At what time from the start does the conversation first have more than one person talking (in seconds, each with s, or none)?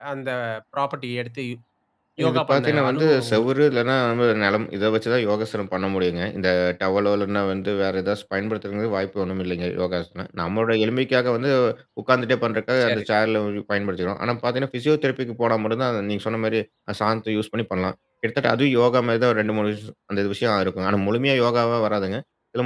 2.3 s